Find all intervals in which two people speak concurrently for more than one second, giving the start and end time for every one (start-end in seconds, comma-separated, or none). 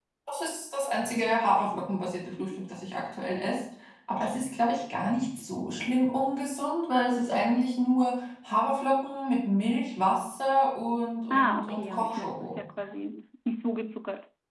11.3-12.6